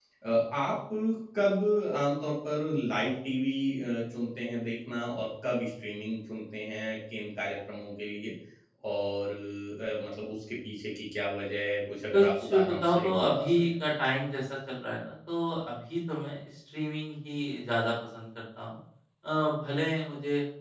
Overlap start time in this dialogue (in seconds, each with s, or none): 12.1 s